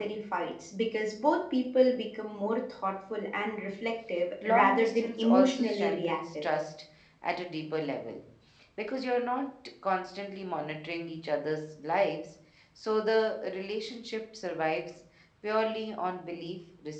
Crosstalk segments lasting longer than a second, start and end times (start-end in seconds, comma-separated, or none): 4.4-6.4